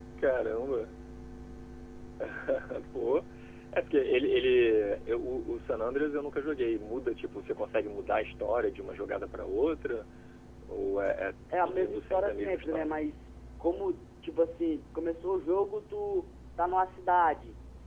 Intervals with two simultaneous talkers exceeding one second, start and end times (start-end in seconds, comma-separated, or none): 11.5-12.9